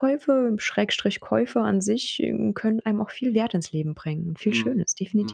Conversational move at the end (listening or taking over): taking over